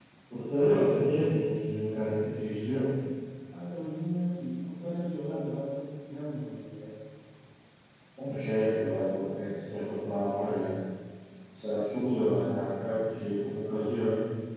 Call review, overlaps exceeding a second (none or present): none